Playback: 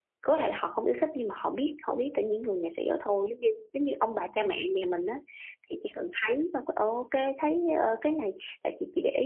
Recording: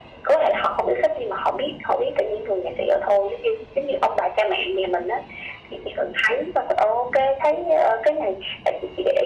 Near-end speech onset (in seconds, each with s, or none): none